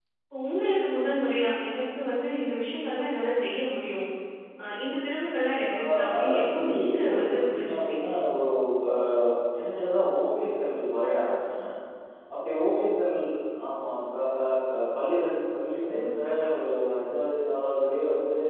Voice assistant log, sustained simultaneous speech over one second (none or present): present